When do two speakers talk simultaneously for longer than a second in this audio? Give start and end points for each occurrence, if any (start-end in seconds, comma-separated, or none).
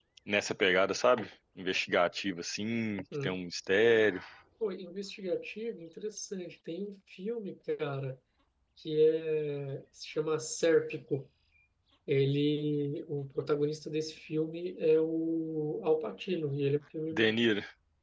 none